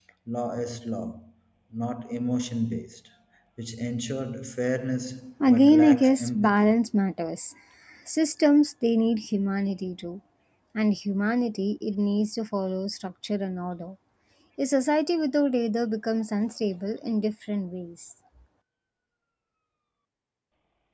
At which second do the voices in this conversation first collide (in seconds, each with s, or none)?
5.4 s